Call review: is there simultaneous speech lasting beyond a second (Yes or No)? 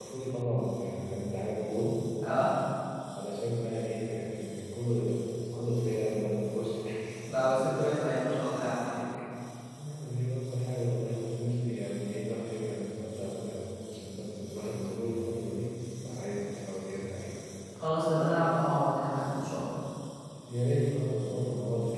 No